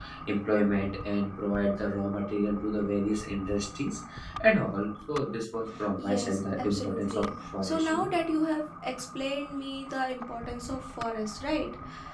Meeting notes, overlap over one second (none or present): present